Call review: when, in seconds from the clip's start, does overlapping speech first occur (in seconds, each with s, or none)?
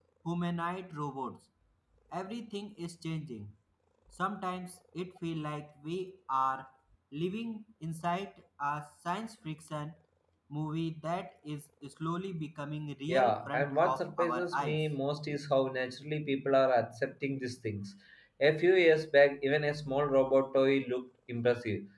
13.1 s